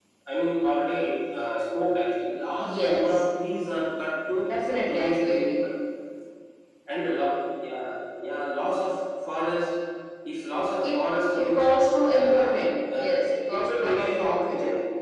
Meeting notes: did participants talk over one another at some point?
Yes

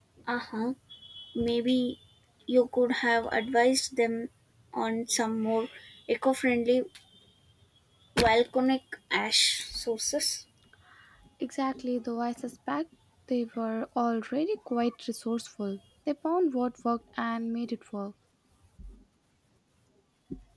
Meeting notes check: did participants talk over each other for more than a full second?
No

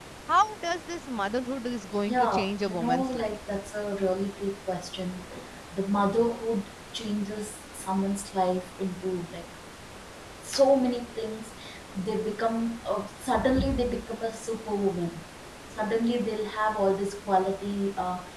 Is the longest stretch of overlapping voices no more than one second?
No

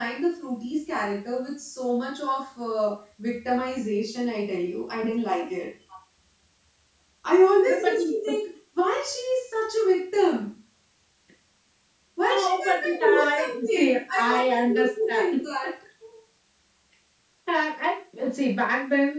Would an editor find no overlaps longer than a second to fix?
No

